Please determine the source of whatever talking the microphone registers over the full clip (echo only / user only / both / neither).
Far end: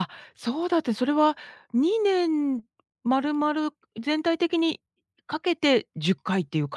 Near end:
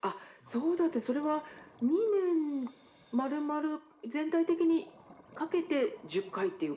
echo only